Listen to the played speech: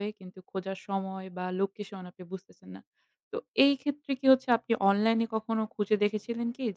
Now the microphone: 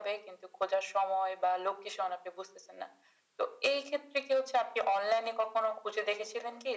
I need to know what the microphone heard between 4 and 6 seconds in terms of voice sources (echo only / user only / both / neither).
echo only